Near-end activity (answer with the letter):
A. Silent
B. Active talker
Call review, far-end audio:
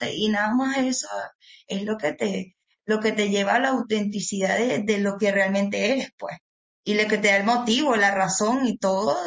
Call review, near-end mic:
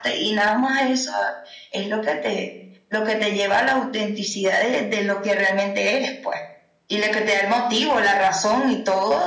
A